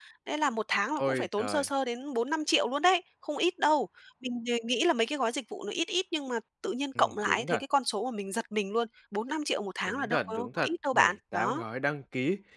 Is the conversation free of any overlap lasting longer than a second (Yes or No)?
No